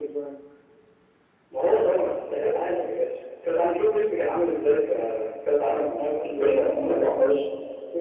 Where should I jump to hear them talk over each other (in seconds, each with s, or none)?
6.0 s